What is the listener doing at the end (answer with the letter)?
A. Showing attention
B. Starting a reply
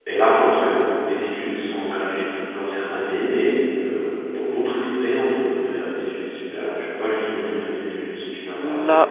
B